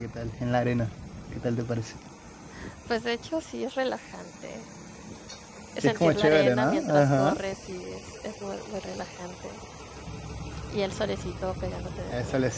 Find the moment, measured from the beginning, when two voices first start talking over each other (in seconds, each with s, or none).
5.8 s